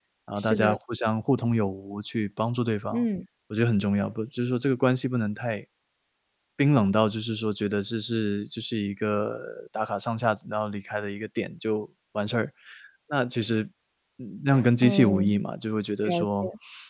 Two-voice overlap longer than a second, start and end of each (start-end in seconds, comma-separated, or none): none